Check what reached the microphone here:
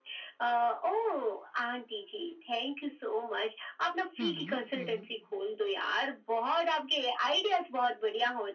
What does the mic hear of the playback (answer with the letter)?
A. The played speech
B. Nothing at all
A